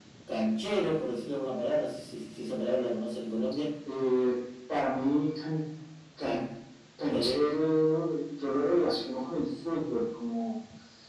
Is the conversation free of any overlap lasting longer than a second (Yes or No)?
Yes